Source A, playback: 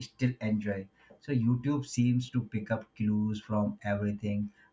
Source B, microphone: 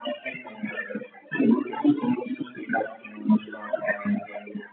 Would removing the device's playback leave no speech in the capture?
Yes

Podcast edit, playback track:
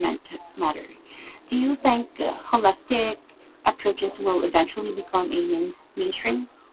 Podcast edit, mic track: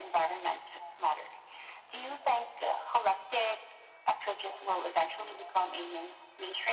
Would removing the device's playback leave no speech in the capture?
Yes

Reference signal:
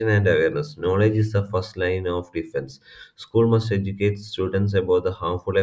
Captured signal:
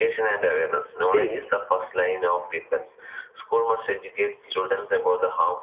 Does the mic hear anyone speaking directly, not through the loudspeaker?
Yes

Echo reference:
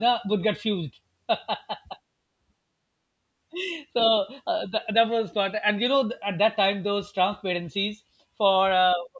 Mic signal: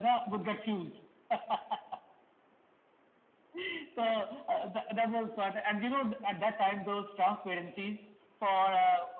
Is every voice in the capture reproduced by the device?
Yes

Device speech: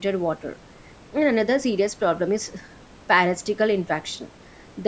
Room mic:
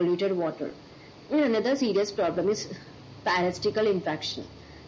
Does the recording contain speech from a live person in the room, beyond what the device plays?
No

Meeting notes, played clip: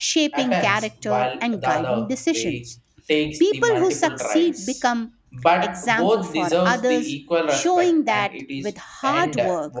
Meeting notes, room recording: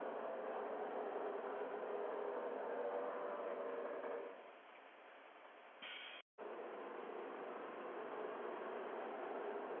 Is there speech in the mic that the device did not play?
No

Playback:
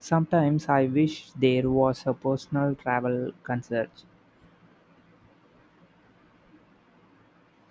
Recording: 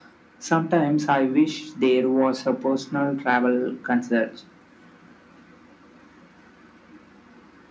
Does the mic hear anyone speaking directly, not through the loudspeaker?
No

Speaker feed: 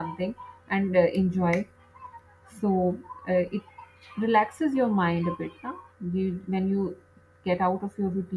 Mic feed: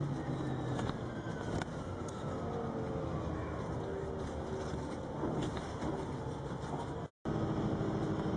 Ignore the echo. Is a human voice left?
No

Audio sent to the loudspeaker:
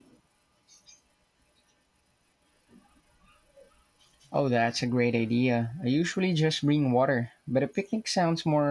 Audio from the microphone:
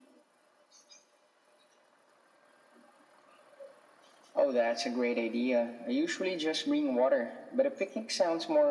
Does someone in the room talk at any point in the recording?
No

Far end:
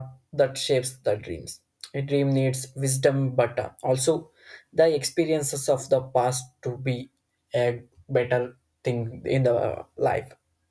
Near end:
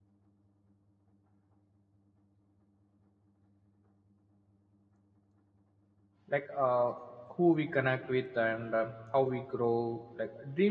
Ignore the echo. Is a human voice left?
Yes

